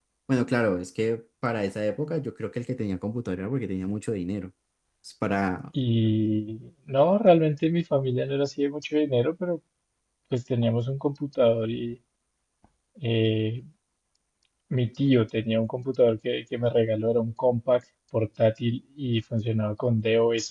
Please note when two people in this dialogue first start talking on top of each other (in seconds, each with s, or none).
none